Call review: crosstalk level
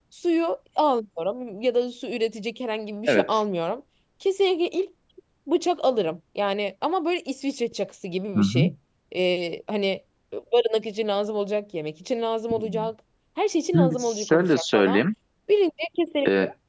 present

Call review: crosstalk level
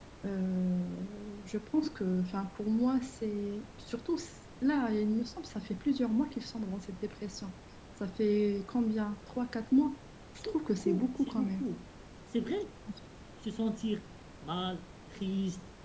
present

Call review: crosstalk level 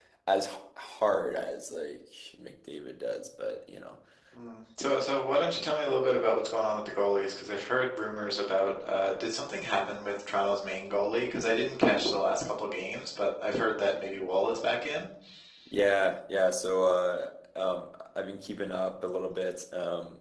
none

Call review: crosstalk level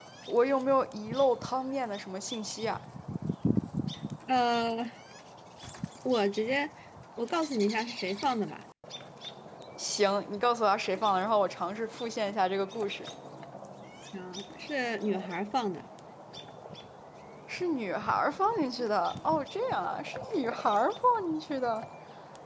none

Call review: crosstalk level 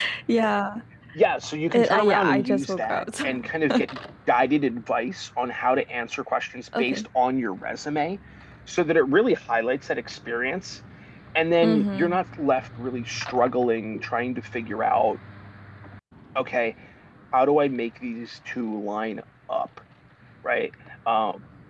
present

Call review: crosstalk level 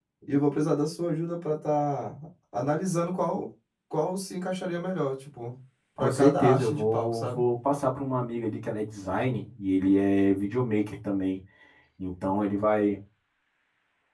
present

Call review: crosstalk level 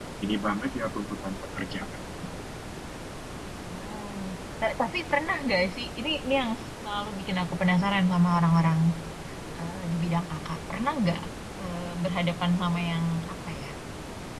none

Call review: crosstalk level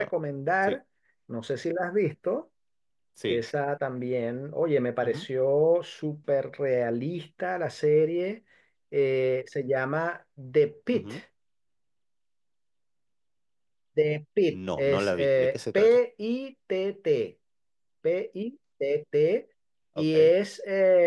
present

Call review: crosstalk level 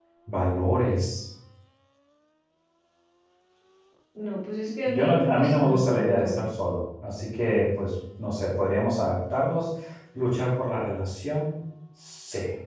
present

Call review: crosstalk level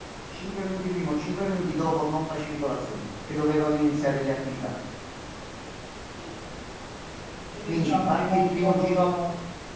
present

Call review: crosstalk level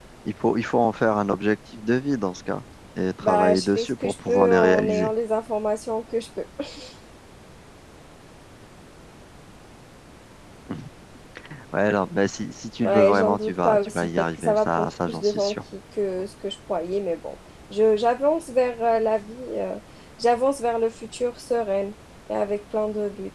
present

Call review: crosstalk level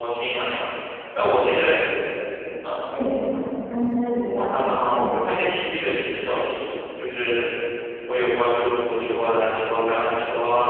present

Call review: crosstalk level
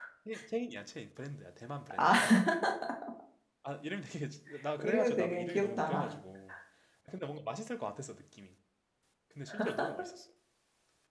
present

